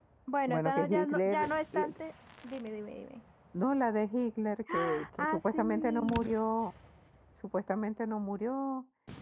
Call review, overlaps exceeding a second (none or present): present